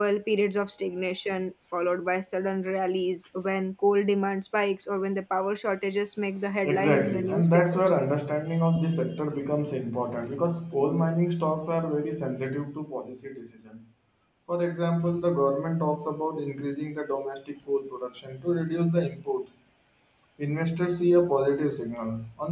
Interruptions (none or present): present